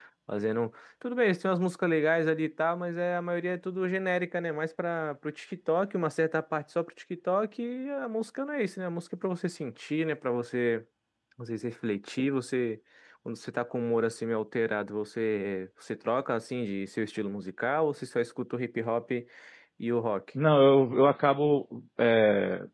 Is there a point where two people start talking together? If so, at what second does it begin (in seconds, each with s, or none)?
none